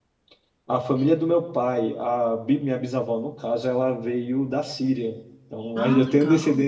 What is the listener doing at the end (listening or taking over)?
listening